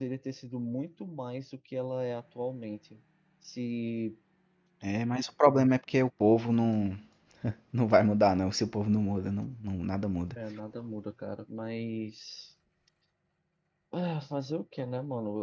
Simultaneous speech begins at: none

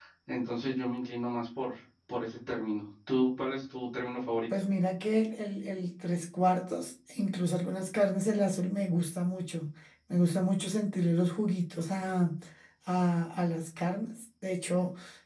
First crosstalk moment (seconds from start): none

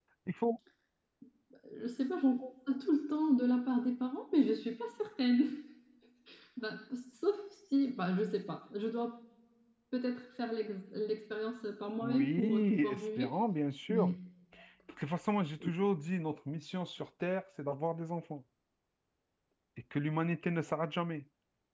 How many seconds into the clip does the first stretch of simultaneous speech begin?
12.0 s

